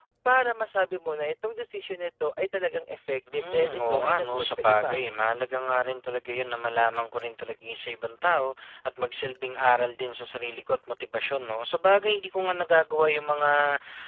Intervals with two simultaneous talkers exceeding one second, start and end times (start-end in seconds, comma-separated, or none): 3.3-5.0